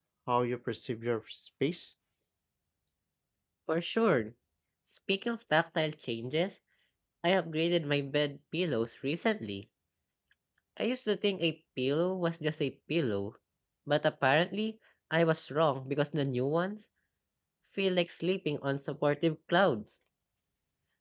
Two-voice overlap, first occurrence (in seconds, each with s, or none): none